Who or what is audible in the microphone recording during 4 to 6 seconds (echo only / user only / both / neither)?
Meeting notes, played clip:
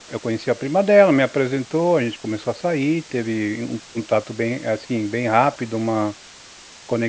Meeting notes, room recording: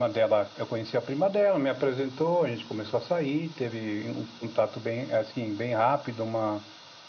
echo only